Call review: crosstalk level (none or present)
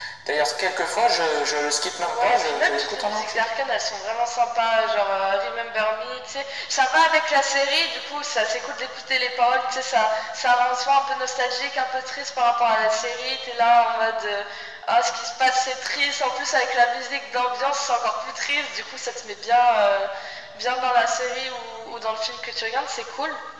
present